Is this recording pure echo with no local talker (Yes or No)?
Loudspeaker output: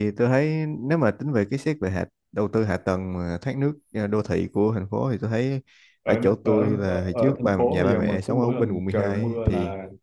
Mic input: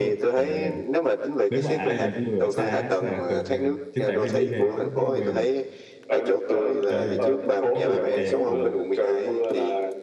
No